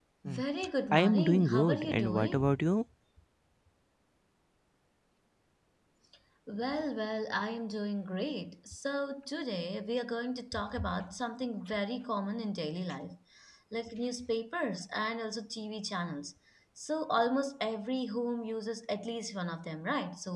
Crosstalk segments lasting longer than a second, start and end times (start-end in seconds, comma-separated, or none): 0.9-2.7